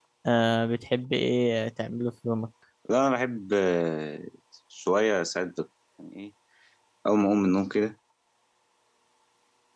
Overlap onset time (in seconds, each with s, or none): none